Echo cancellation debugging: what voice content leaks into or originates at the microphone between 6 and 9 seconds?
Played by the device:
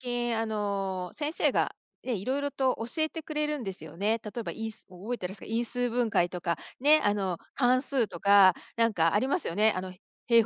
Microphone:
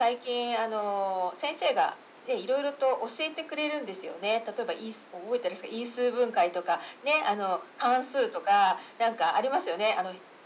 echo only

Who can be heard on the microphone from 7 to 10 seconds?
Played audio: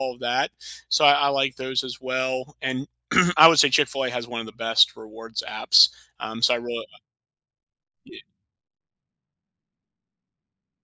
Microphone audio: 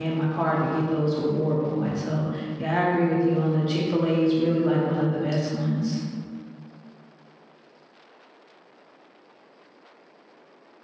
neither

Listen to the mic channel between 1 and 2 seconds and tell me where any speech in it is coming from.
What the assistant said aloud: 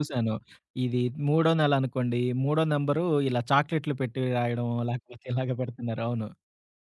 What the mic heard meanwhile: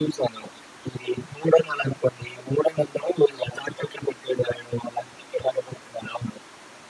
echo only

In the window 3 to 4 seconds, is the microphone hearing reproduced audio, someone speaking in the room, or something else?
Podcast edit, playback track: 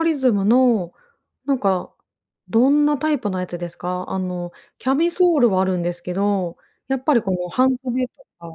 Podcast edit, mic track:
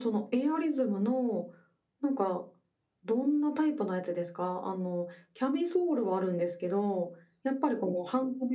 echo only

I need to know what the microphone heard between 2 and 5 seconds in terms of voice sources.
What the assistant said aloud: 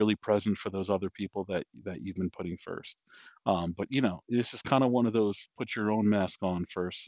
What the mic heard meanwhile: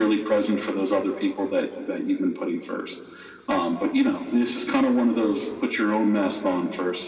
echo only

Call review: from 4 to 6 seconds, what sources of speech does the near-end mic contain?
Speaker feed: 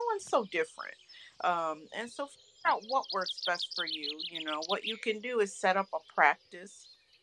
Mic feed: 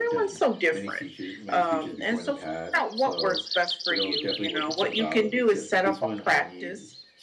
both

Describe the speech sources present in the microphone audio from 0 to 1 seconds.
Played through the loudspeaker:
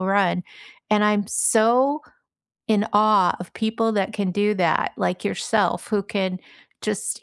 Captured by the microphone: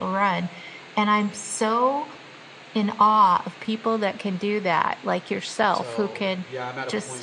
echo only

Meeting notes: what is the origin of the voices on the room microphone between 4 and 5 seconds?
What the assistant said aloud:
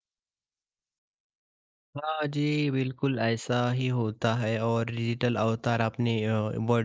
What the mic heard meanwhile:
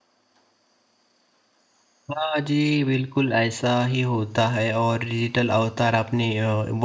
echo only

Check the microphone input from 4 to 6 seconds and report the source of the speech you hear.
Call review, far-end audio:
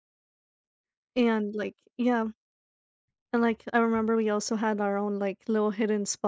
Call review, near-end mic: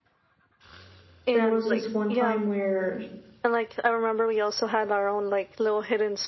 echo only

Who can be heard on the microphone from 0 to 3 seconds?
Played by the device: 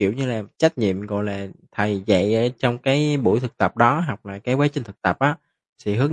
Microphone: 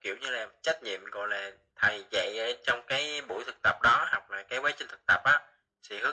echo only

